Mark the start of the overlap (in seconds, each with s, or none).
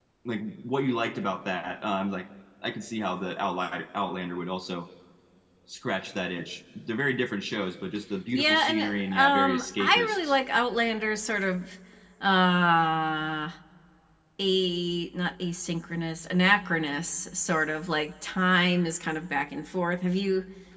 8.3 s